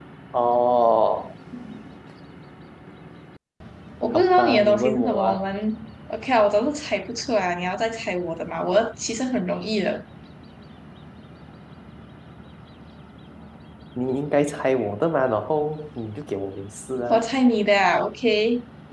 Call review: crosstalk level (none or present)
present